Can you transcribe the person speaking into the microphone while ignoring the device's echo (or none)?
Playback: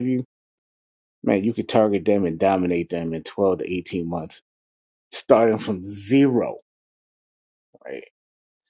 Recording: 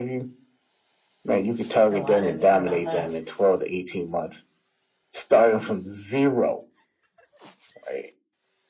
No, I didn't hear about that.